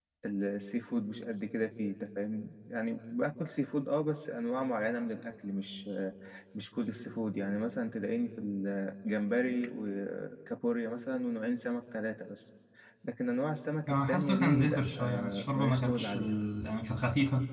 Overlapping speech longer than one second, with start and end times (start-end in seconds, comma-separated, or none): 13.9-16.3